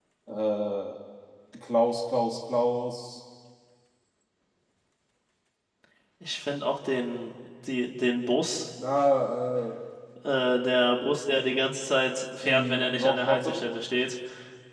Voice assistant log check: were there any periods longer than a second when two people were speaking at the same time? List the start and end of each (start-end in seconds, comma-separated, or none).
12.4-13.7